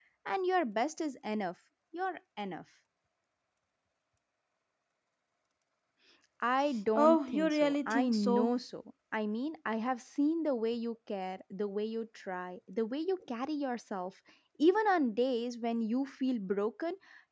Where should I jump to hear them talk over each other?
7.0 s

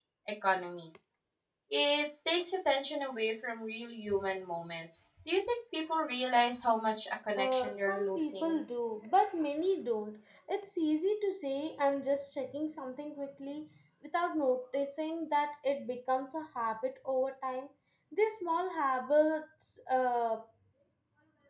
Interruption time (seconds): 7.4 s

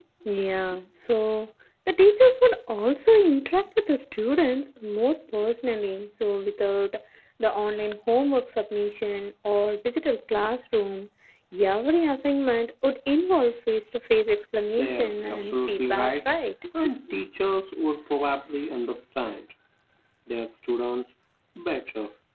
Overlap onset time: 14.8 s

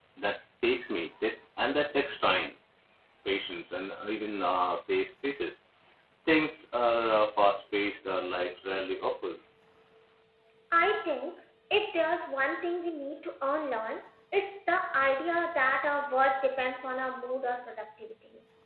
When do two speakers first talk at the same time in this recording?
none

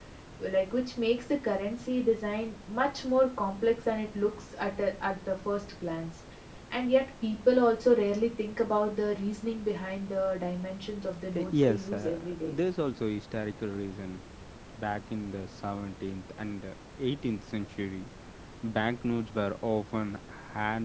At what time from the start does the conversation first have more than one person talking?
11.3 s

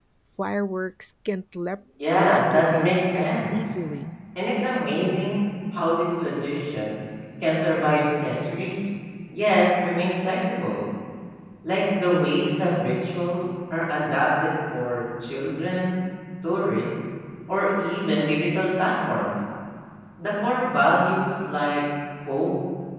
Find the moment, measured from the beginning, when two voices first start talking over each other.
2.0 s

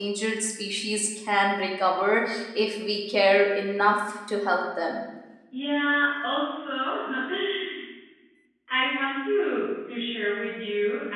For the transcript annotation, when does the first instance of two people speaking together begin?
none

